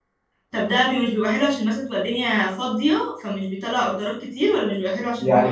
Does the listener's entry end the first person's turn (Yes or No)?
Yes